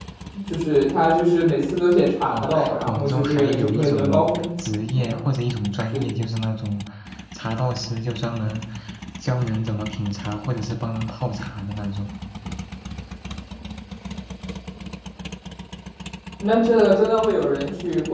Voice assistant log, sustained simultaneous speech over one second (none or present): present